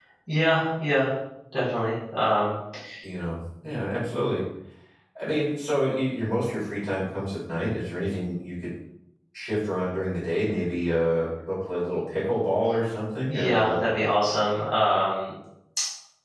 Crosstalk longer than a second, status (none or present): none